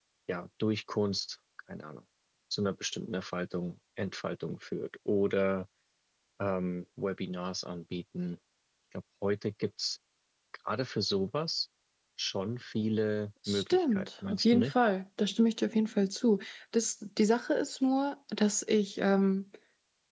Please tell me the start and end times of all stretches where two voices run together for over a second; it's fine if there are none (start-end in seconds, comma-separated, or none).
13.5-14.7